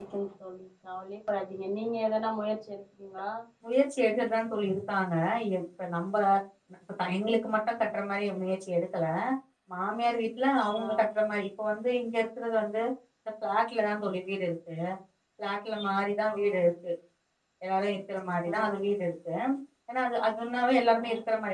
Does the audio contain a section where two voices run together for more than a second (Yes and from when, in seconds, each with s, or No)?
No